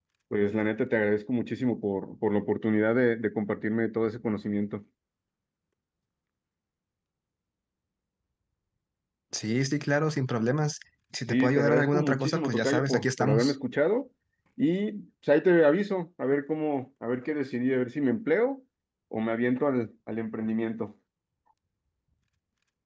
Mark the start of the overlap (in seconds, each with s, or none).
11.3 s